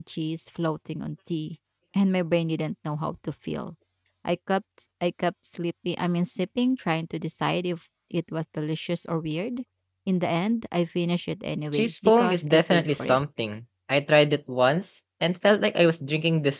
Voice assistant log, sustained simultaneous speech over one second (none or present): present